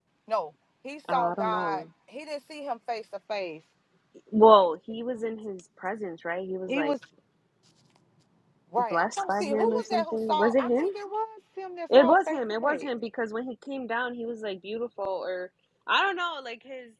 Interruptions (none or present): present